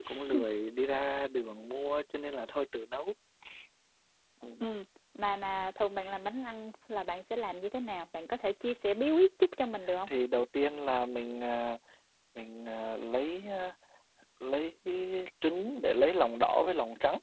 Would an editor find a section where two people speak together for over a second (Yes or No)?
No